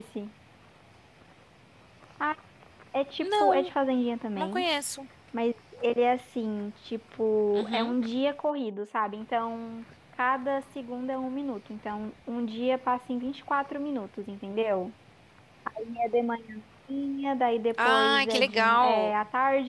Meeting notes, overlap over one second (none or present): present